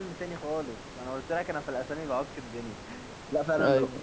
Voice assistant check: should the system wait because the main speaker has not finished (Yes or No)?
Yes